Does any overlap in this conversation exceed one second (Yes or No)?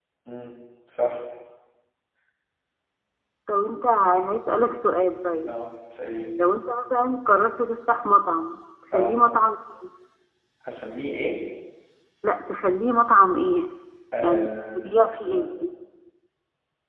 Yes